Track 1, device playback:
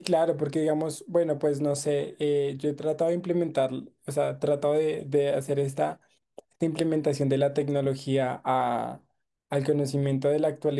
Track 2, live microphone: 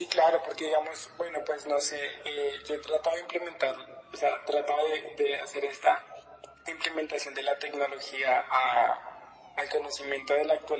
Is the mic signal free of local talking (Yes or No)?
Yes